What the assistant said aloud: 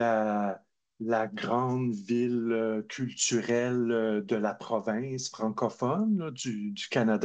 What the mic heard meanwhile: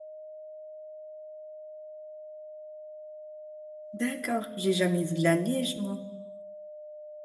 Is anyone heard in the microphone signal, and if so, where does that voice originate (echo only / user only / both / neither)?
user only